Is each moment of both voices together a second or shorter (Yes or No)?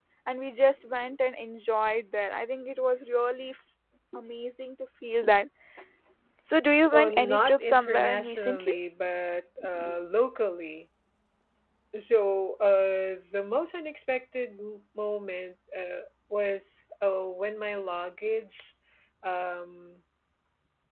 No